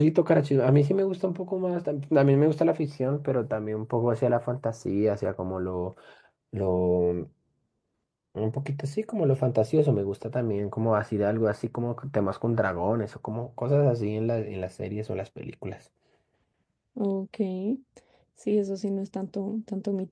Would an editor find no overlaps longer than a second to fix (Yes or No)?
Yes